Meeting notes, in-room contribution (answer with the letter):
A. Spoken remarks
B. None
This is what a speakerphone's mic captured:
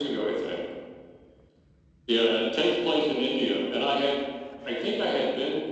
B